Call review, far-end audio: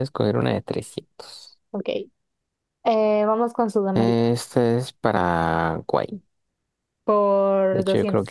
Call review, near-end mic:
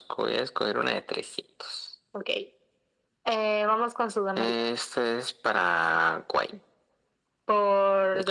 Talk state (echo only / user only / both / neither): echo only